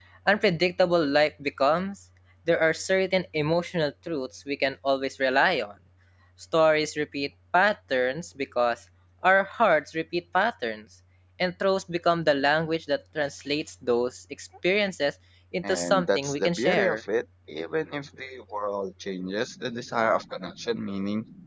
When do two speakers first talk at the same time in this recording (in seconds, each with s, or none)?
15.6 s